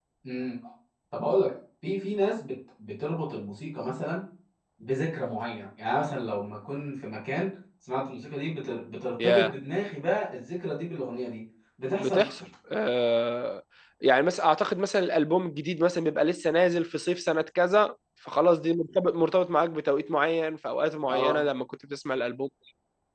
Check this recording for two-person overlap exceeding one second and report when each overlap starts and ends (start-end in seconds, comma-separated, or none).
none